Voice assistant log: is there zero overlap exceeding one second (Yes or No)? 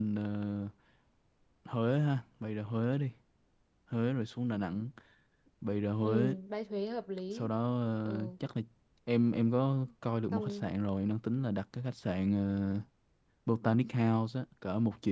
Yes